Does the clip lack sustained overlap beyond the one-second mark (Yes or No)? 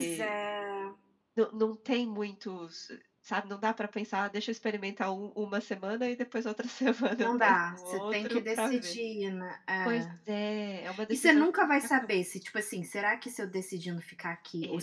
No